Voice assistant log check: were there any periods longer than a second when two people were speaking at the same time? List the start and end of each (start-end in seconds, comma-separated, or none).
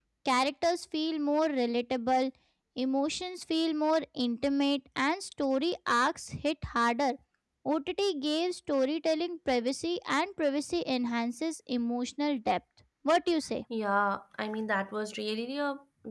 none